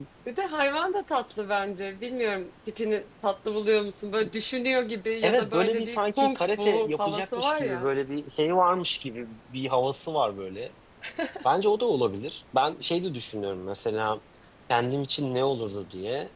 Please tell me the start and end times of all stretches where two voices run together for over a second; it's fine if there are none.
5.2-7.9

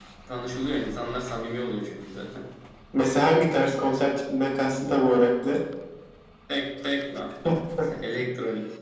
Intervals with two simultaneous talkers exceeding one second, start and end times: none

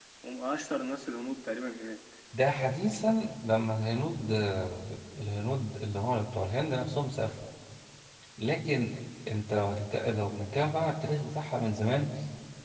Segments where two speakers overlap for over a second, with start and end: none

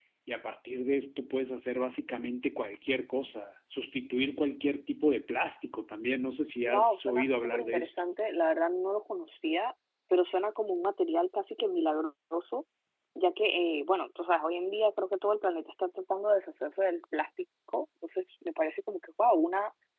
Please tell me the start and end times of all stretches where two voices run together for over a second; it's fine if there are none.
6.6-7.9

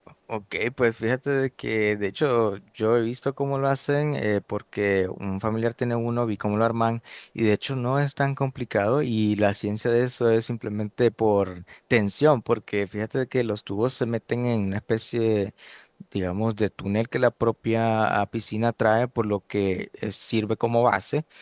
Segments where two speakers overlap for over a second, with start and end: none

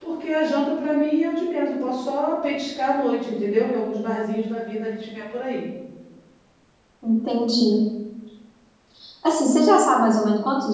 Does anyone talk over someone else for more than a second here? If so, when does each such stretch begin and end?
none

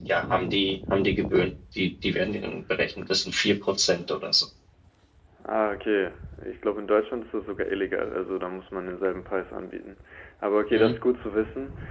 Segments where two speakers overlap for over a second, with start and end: none

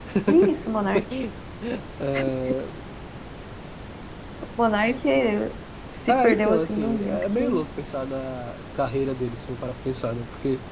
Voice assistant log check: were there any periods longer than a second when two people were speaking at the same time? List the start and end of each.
6.1-7.6

